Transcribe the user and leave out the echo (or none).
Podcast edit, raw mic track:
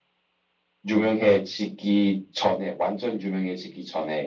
none